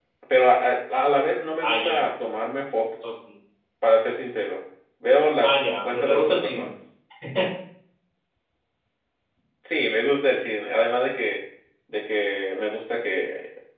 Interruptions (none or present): present